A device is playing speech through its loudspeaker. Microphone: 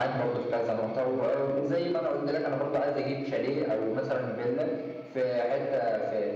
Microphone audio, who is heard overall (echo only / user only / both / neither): echo only